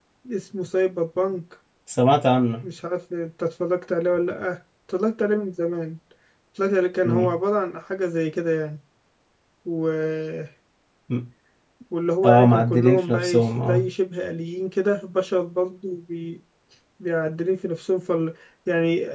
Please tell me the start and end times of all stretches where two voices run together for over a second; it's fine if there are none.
12.2-13.8

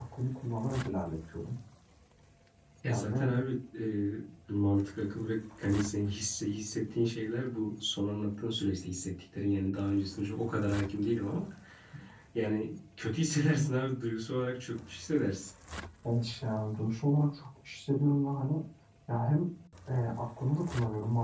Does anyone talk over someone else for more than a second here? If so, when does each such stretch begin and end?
none

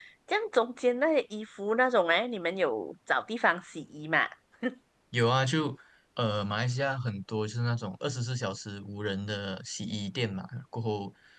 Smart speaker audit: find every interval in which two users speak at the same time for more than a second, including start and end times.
none

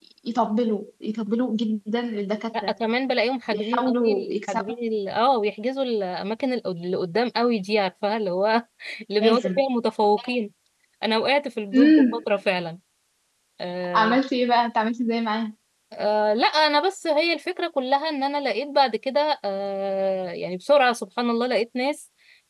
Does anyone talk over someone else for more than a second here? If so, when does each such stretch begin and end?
3.5-4.7

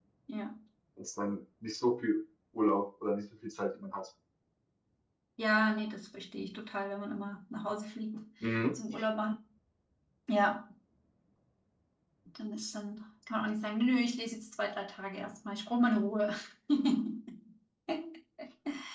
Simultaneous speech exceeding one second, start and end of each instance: none

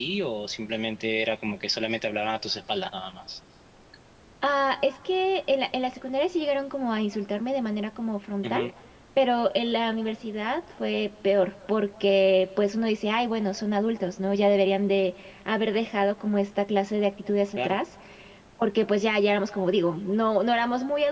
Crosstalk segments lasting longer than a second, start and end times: none

